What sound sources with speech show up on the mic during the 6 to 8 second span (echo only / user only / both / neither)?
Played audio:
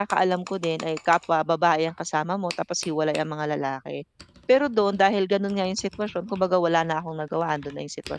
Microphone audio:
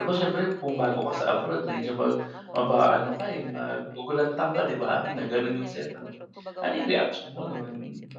both